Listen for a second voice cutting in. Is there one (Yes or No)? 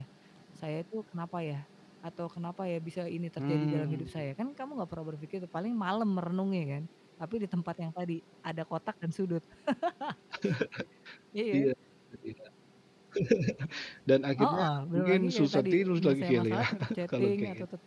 Yes